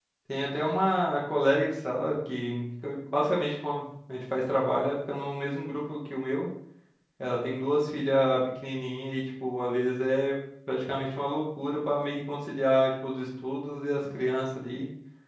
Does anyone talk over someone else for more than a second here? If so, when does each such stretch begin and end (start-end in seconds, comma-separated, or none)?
none